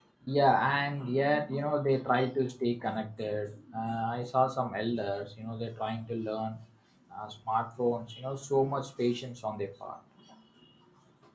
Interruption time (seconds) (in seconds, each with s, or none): none